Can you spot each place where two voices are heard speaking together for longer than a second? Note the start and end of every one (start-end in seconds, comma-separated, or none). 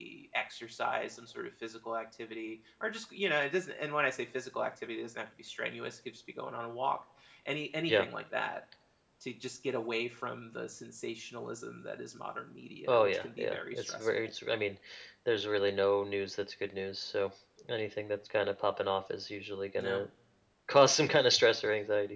12.9-14.3